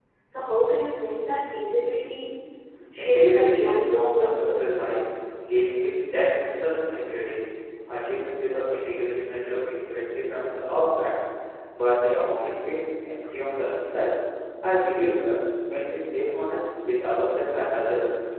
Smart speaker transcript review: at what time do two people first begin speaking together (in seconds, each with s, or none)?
3.0 s